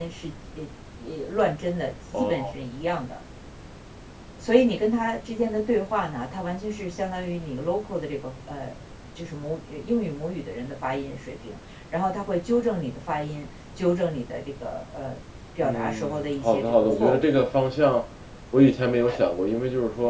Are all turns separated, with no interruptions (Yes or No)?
No